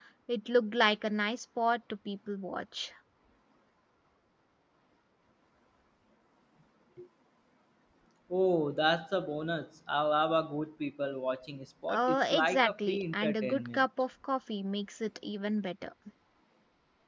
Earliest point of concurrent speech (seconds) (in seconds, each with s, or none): 11.9 s